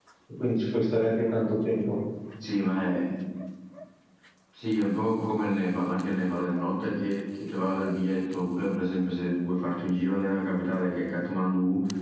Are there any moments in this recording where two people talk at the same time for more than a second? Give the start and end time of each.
none

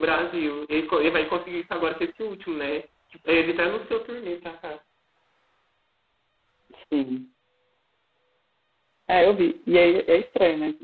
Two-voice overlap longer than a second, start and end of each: none

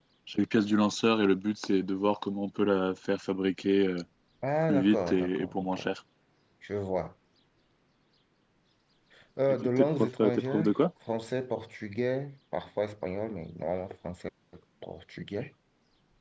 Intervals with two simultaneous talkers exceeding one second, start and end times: 4.6-5.9, 9.5-10.7

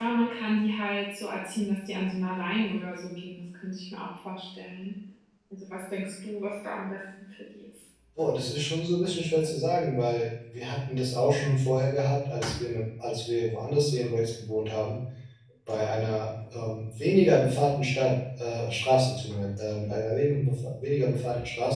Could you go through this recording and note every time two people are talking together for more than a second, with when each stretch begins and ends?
none

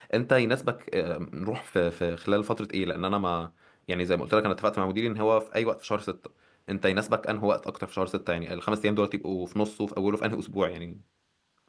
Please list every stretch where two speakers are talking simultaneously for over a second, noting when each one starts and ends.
none

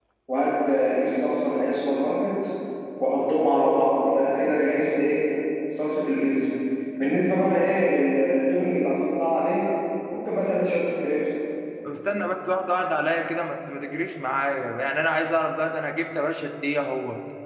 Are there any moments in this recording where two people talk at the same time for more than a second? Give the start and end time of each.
none

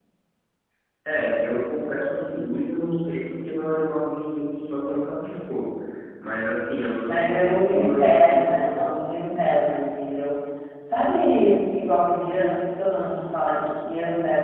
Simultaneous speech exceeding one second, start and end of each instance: 7.1-8.9

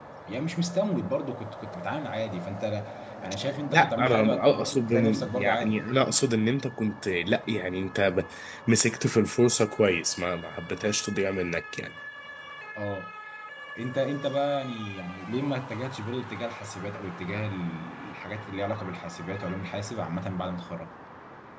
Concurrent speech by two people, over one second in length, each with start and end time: 3.7-5.8

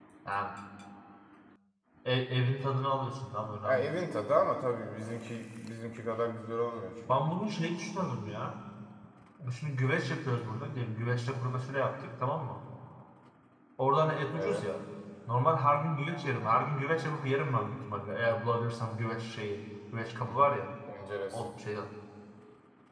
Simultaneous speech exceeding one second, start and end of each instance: none

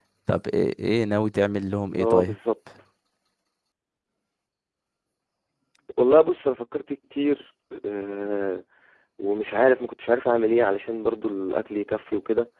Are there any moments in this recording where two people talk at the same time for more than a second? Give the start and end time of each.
none

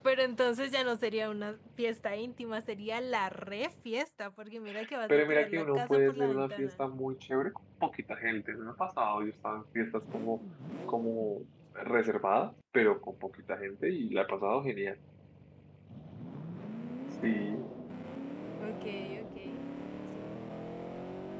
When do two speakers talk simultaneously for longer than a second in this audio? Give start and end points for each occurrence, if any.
5.1-6.8

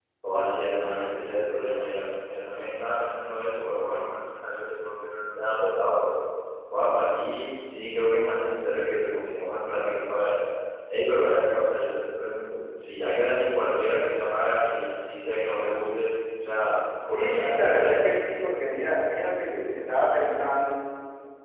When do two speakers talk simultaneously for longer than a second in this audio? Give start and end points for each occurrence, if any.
17.0-18.3

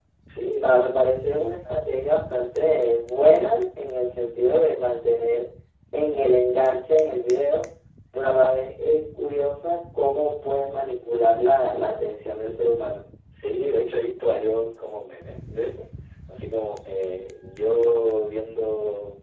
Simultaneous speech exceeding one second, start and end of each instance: none

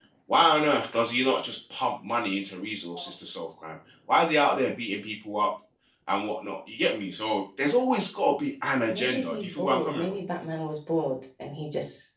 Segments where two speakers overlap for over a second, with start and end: 8.9-10.2

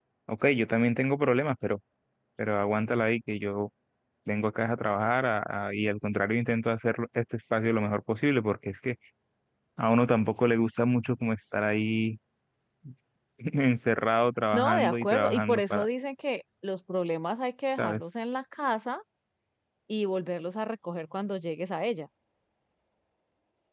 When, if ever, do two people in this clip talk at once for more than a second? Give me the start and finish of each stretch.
14.5-15.8

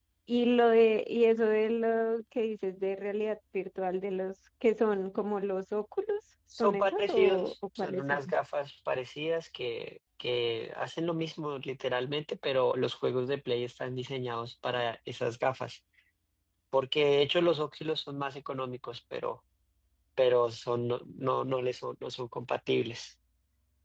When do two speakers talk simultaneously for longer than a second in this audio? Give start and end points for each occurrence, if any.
6.6-8.2

